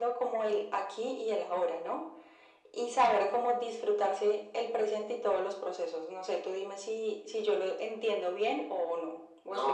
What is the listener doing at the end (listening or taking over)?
taking over